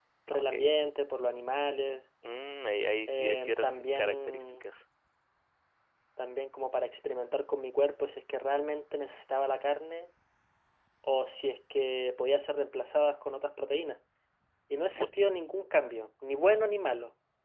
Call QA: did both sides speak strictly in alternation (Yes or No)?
No